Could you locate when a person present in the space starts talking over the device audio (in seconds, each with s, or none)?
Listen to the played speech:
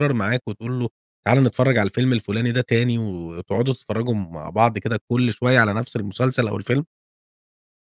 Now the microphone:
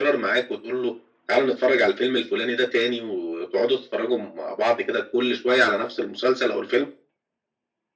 none